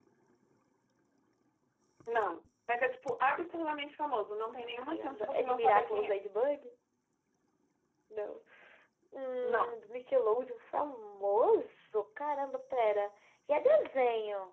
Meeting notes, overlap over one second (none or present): present